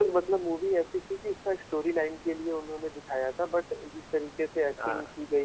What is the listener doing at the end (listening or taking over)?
listening